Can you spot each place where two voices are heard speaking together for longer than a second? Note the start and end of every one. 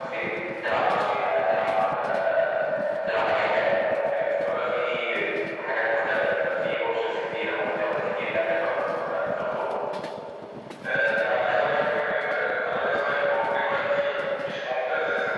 none

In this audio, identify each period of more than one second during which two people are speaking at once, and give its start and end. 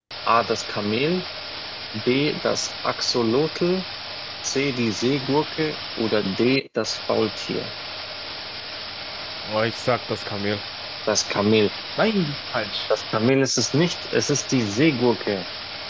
none

